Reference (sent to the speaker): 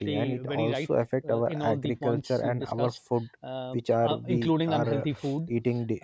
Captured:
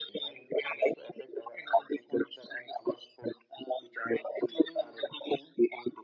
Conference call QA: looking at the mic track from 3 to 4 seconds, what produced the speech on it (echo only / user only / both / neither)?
echo only